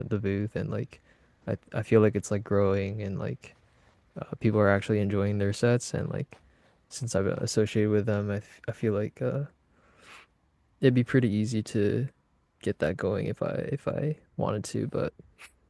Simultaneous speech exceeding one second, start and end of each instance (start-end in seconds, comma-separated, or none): none